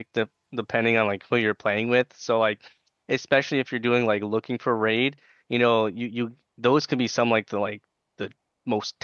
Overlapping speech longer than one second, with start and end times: none

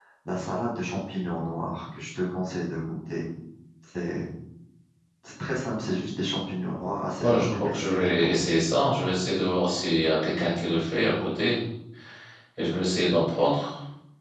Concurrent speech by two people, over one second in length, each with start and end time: 7.2-8.4

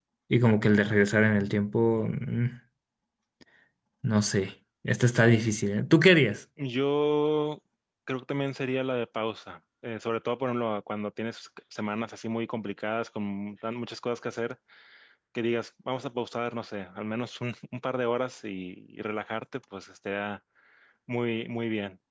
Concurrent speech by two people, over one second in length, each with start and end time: none

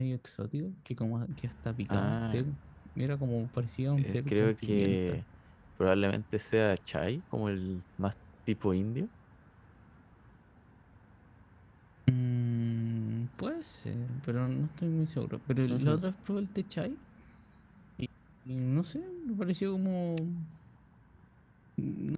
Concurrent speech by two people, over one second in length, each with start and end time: 4.0-5.2

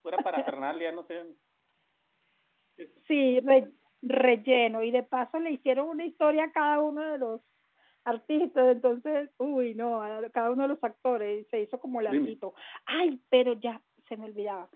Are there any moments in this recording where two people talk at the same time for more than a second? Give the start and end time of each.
none

